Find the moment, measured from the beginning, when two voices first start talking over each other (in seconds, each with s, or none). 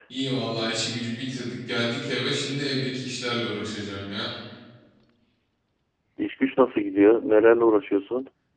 none